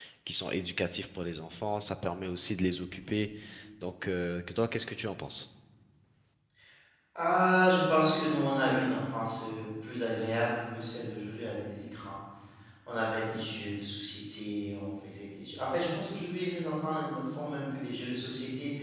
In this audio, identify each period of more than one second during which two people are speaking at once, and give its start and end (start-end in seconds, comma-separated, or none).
none